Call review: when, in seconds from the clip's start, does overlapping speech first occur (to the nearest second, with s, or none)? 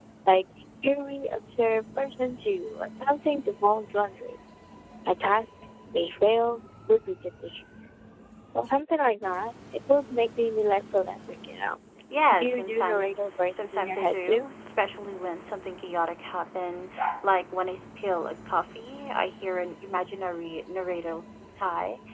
12 s